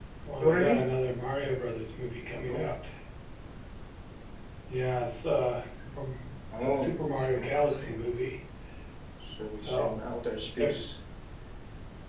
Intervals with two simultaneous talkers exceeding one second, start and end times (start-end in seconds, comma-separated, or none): 6.6-8.0